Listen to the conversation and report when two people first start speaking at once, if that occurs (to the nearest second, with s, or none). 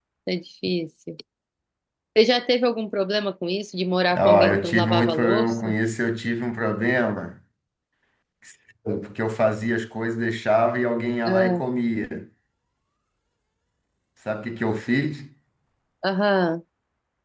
4 s